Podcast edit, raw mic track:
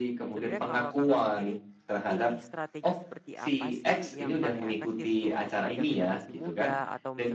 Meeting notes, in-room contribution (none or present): present